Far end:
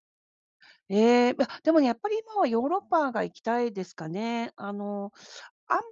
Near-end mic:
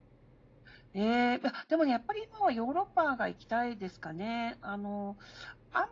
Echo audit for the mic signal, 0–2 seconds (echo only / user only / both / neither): echo only